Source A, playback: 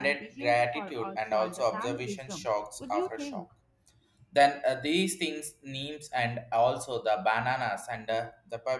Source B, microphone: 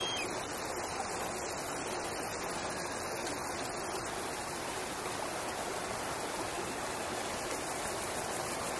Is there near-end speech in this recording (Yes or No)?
No